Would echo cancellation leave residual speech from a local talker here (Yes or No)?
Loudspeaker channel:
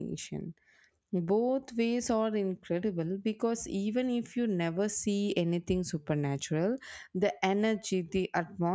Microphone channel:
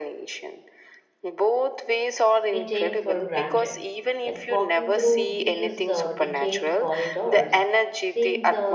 Yes